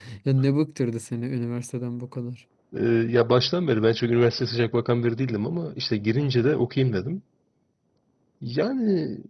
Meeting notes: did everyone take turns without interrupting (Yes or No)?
Yes